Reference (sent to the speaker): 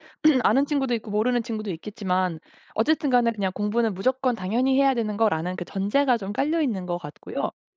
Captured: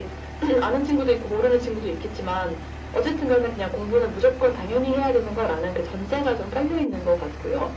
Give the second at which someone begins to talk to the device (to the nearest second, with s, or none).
none